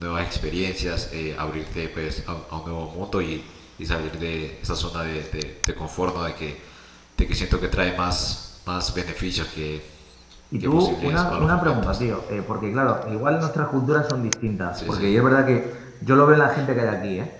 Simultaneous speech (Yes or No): Yes